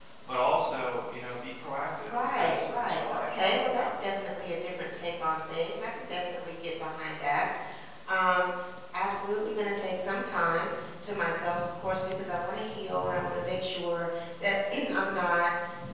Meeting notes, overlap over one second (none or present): present